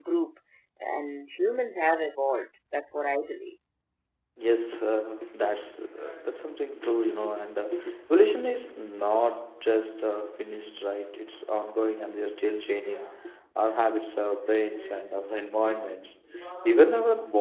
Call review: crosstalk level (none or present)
none